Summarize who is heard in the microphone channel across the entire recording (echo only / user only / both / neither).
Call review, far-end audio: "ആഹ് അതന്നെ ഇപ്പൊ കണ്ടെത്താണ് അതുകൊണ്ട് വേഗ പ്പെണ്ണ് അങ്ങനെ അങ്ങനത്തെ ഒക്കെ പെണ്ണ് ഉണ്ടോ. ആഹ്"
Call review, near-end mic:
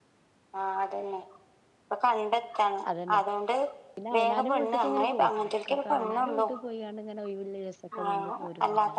both